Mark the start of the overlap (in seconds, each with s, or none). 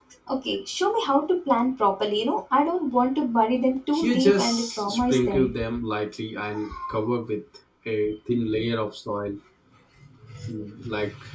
3.9 s